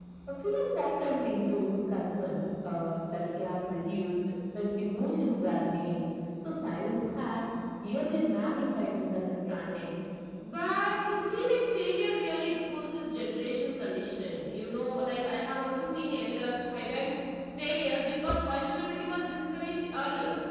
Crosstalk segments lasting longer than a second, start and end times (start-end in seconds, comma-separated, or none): none